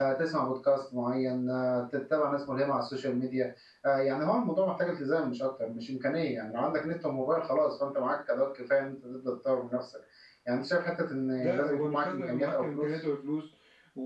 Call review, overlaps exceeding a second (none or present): present